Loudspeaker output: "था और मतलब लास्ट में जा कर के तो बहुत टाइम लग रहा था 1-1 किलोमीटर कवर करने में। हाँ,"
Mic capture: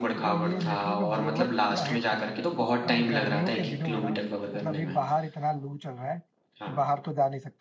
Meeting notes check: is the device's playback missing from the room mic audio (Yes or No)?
No